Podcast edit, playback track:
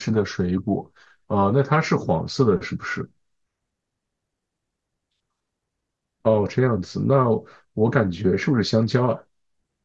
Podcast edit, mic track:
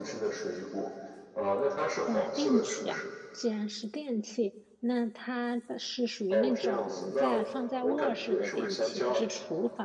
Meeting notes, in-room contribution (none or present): present